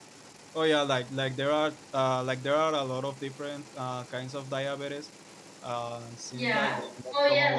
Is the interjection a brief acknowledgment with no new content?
No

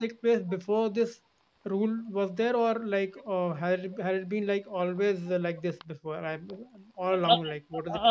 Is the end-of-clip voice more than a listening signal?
Yes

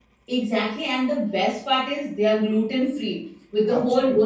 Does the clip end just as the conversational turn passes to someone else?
No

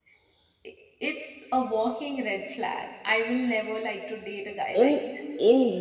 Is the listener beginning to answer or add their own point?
Yes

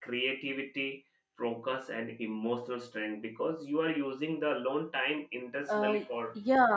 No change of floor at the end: No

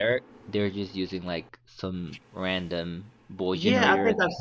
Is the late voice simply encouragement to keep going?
No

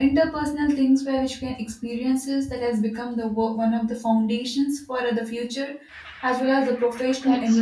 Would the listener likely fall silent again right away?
No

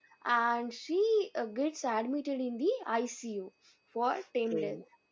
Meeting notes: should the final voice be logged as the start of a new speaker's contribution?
No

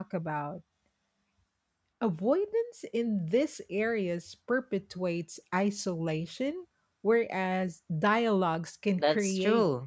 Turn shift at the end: Yes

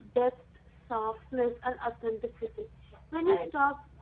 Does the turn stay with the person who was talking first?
Yes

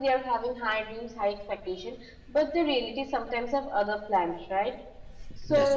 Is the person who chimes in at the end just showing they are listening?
Yes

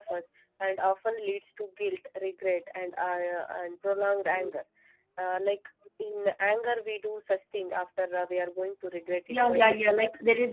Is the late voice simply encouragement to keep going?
No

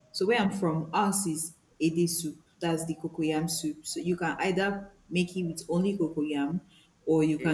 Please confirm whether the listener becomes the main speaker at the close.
No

